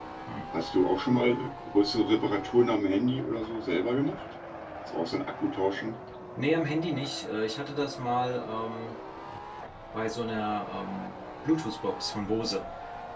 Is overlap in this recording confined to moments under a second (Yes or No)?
Yes